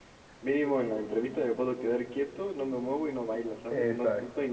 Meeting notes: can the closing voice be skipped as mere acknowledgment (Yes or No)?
No